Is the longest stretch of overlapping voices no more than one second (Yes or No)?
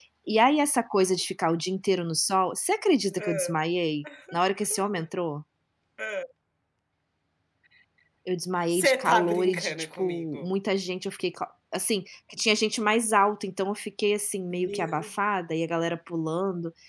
No